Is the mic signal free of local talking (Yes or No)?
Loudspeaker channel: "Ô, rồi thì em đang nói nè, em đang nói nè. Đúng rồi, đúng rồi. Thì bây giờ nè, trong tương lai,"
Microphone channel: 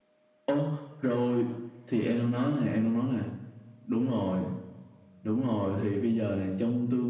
Yes